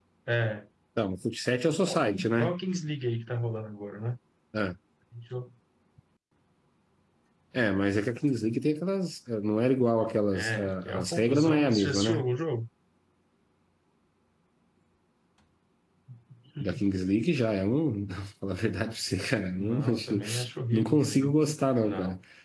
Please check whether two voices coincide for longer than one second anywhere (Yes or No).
Yes